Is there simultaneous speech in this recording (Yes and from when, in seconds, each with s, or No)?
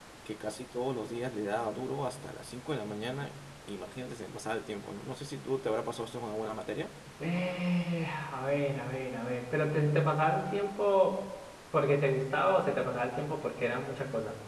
No